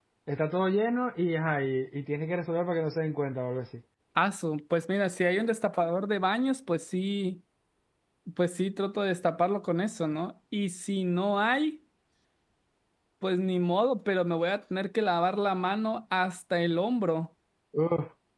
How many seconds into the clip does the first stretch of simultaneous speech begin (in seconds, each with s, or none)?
none